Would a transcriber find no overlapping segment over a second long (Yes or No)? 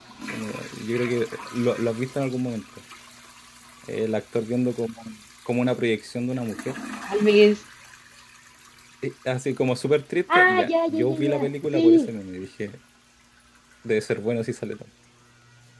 No